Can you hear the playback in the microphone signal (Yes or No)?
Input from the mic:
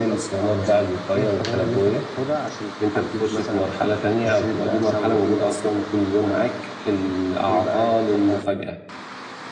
Yes